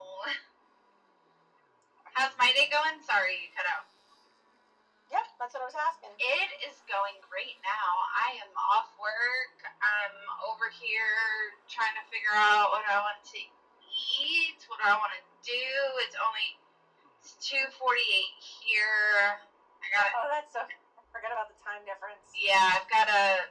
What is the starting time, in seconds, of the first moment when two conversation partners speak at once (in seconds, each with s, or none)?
none